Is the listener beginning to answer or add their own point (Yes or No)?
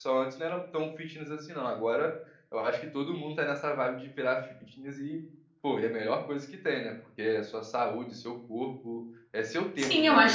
Yes